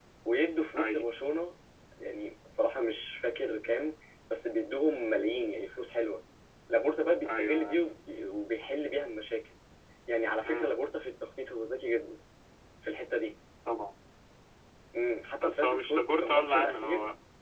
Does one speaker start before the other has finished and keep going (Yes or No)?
Yes